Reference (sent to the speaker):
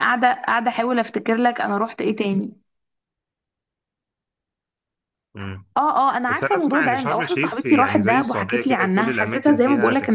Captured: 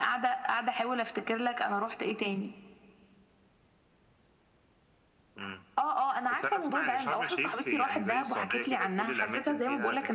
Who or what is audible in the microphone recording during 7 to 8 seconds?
echo only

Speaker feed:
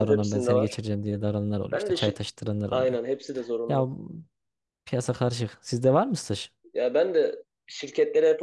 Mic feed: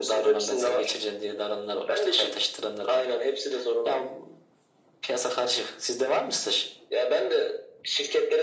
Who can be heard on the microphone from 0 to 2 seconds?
echo only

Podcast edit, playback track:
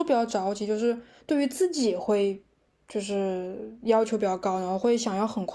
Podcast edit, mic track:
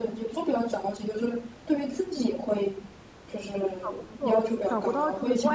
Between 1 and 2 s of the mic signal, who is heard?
echo only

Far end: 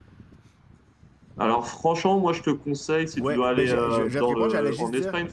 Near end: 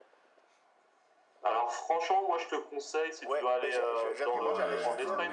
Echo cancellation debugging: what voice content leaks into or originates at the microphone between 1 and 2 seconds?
echo only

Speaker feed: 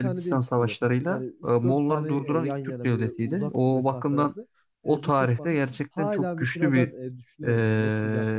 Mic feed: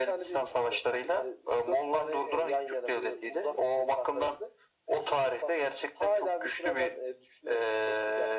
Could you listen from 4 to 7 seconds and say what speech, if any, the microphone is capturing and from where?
echo only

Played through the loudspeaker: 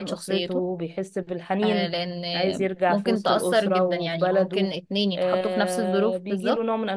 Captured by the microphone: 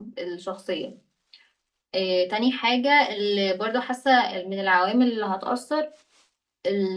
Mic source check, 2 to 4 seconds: user only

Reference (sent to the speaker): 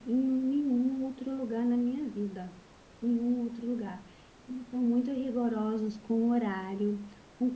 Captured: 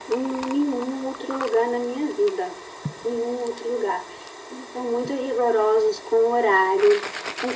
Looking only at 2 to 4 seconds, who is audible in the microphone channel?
echo only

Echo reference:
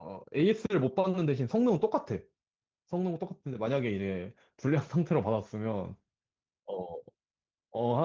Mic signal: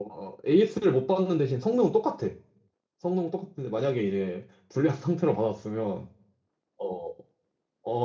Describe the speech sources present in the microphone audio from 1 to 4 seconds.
echo only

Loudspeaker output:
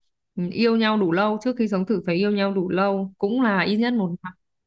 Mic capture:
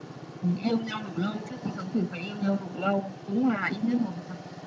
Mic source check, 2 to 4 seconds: echo only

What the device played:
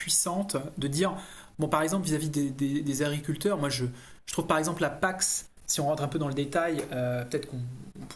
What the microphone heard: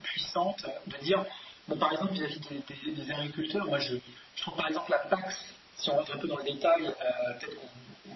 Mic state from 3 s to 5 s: echo only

